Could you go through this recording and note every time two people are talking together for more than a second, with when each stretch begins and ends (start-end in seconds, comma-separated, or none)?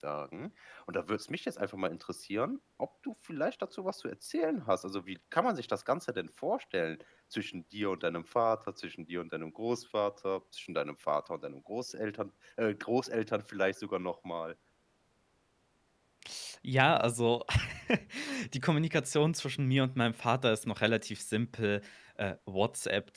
none